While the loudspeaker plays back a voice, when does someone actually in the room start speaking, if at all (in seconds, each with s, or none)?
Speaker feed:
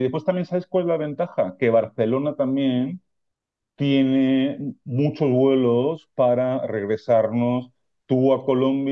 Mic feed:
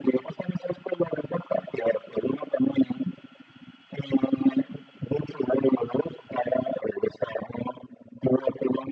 none